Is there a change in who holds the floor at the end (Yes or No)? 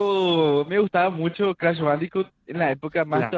No